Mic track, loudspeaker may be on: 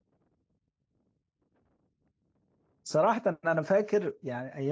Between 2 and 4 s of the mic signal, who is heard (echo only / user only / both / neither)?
user only